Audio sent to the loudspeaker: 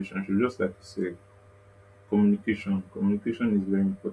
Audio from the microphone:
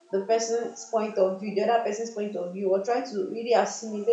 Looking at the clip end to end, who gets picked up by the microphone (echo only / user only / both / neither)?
user only